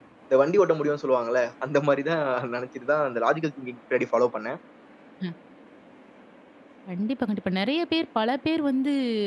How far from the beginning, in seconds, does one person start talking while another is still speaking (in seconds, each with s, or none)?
none